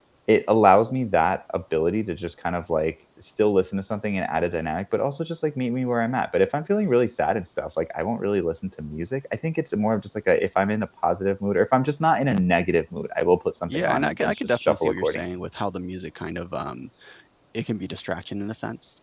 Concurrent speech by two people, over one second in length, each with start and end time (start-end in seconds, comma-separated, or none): 13.7-15.2